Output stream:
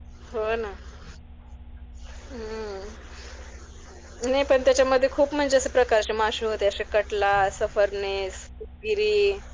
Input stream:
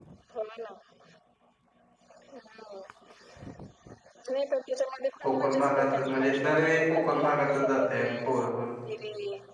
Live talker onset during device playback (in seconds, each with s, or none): 5.2 s